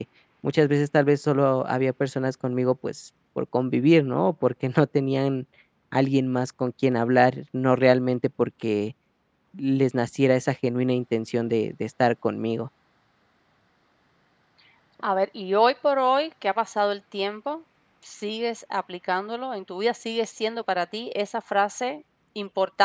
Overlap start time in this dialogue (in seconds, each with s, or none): none